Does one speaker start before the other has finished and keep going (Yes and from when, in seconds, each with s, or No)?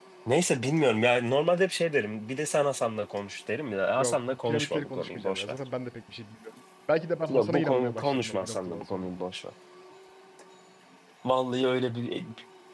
Yes, from 4.0 s